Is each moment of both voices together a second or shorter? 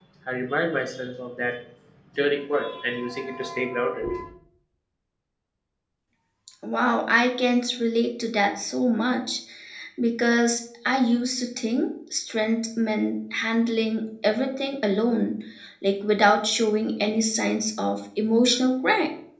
Yes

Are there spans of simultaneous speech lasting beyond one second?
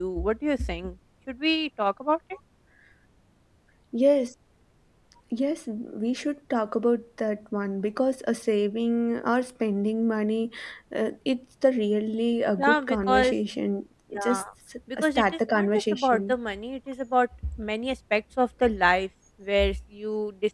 Yes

